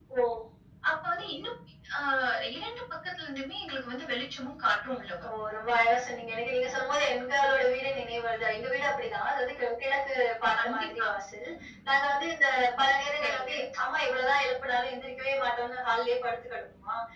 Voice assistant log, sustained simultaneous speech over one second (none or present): none